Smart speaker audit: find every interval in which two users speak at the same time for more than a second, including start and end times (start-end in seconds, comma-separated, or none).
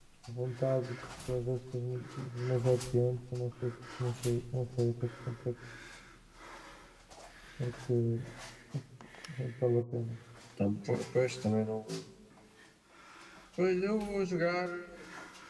none